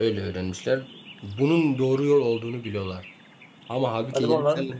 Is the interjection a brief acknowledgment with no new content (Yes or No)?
Yes